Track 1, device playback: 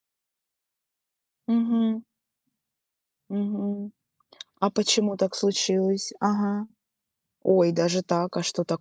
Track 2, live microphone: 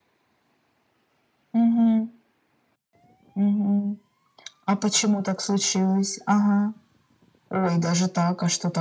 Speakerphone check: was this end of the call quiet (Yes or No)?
Yes